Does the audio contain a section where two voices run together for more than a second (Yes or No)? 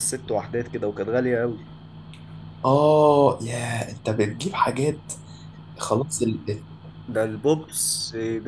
No